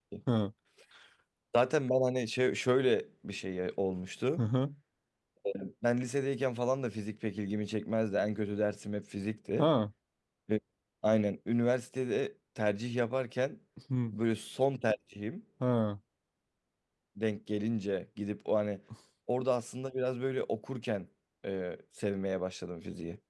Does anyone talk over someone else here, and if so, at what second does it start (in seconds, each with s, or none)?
none